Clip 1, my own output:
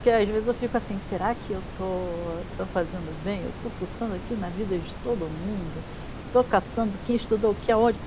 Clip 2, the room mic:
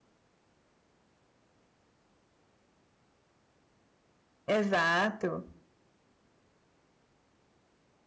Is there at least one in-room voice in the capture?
Yes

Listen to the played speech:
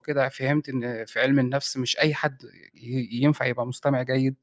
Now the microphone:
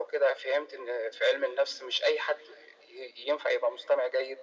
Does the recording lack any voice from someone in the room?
Yes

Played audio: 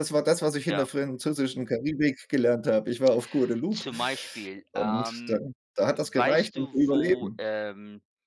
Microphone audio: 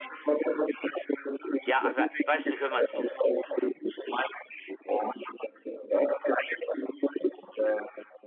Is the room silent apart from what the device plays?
No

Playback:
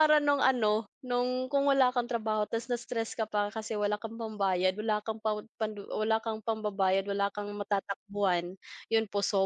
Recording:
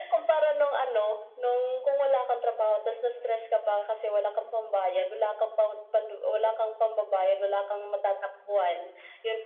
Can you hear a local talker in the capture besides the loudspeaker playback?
No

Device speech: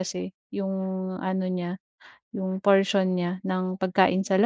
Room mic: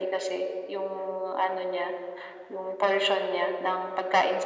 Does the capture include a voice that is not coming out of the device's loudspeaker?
No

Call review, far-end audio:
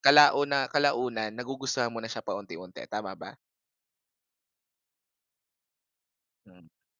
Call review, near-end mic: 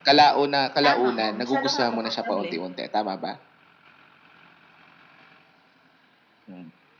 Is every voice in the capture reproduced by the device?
No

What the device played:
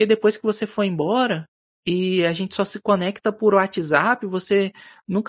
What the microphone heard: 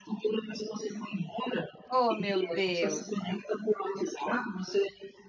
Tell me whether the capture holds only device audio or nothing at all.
No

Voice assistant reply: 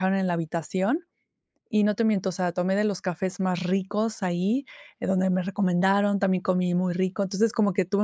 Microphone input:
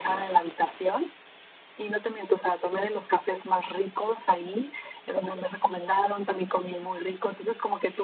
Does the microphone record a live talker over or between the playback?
No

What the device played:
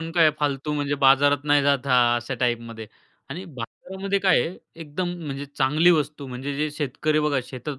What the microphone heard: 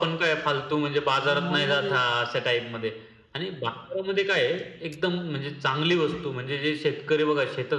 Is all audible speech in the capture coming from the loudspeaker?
No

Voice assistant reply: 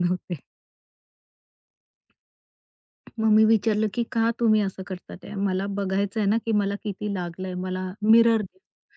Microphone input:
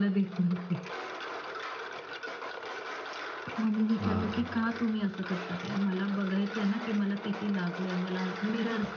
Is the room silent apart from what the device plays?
No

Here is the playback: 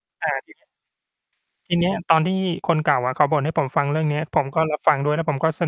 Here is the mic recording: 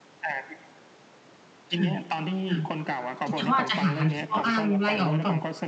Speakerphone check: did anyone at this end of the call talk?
Yes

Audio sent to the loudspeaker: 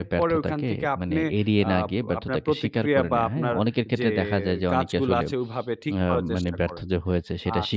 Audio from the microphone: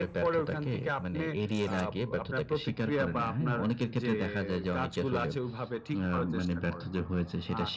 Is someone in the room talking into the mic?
No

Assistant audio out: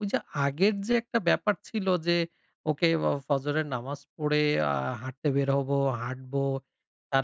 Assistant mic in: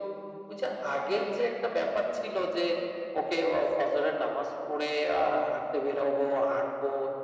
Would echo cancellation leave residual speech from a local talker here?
No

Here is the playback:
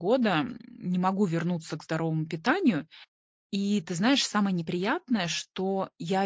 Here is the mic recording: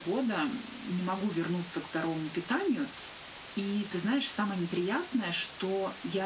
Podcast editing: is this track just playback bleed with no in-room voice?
Yes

